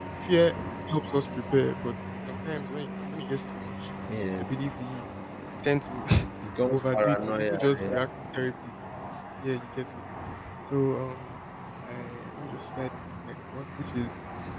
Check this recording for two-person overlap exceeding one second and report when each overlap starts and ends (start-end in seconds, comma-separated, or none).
6.7-7.9